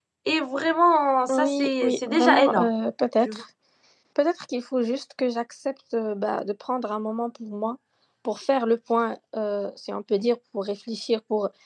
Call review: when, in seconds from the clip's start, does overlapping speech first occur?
1.3 s

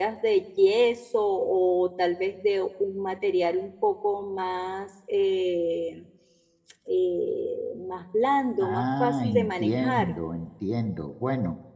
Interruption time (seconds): 8.6 s

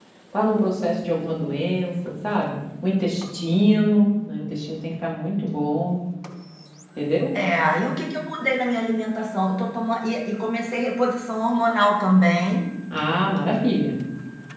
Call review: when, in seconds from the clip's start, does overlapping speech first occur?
none

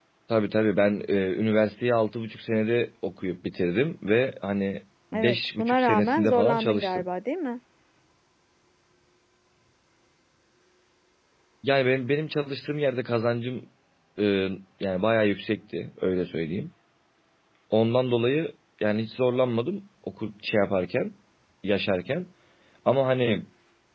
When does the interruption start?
5.1 s

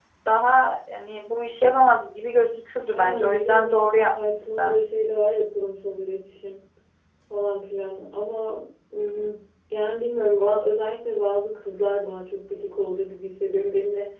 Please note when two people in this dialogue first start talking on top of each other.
2.9 s

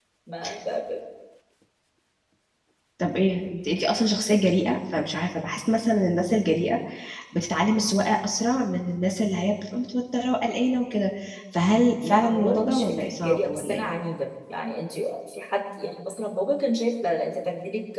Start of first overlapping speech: 12.0 s

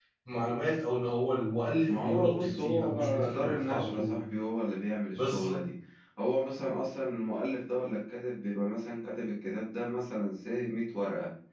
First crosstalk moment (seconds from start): 1.9 s

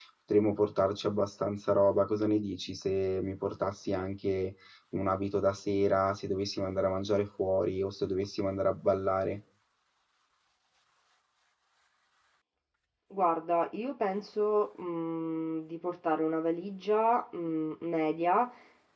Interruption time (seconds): none

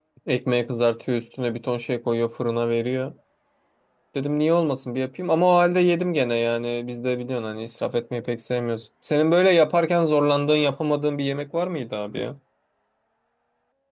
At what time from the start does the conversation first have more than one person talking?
none

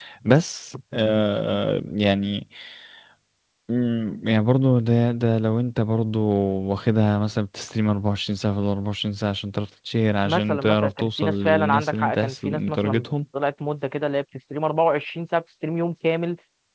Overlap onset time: 10.2 s

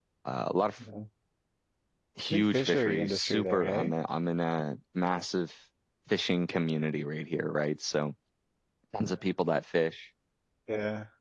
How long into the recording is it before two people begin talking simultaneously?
2.3 s

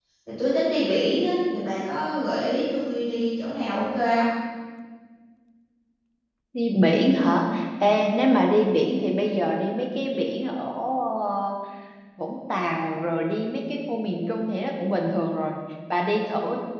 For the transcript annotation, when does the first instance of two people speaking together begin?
none

